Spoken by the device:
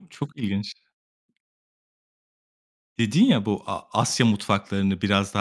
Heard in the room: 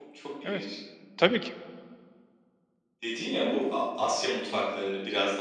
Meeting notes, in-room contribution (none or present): present